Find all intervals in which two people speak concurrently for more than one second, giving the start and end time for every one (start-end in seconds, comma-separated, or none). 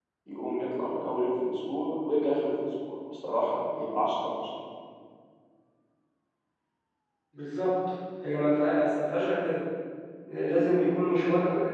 none